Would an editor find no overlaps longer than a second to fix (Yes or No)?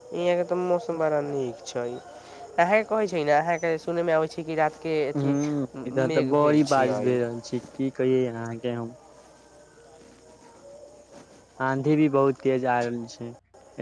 No